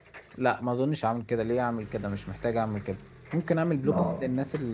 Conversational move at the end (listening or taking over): listening